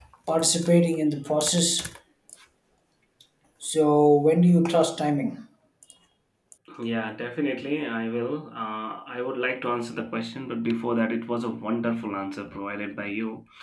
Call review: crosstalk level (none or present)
none